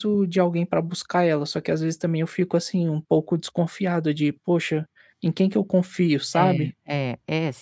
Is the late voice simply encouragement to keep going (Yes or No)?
No